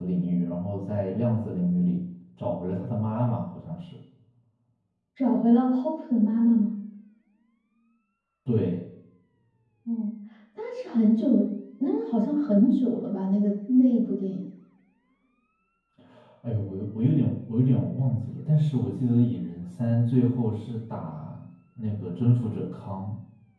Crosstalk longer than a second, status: none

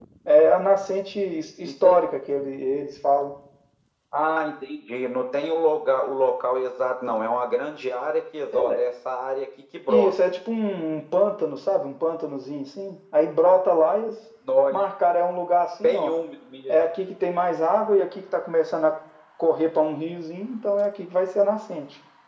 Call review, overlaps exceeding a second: none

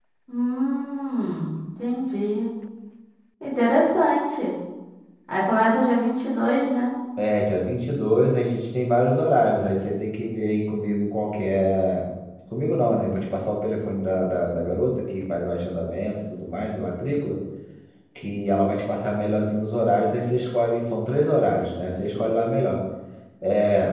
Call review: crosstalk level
none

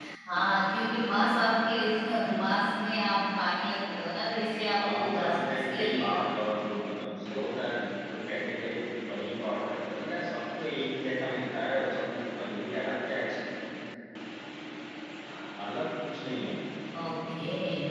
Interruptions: present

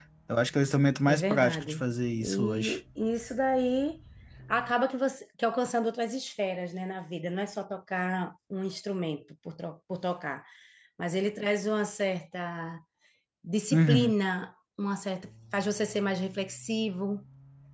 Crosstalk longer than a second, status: present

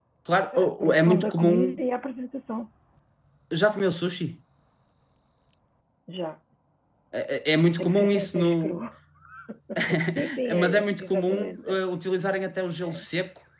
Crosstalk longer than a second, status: present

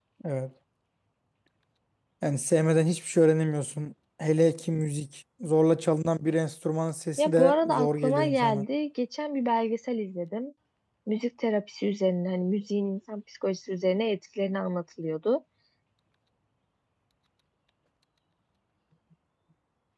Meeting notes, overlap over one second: present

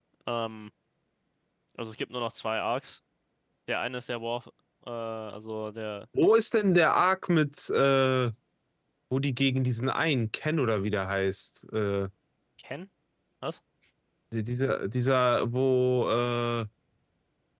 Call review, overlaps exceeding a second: none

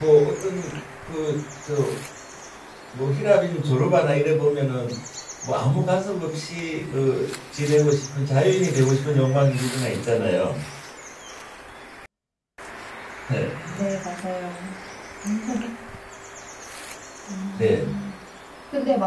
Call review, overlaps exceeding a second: none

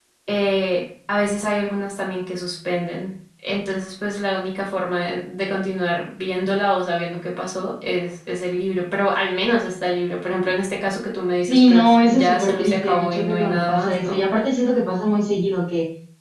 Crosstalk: present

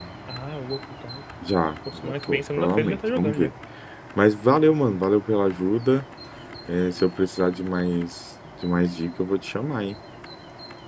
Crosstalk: present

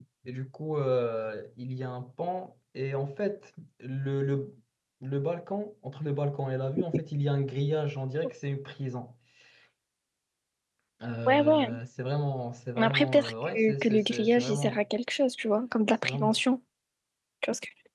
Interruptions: present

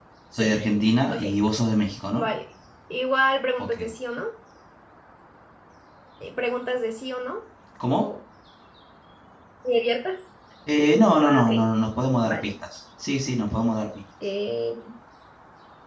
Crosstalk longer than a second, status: none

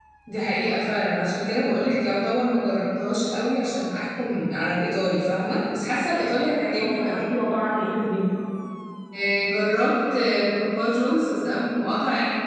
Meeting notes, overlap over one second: none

